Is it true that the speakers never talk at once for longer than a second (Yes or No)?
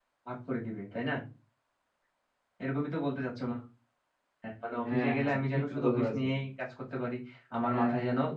No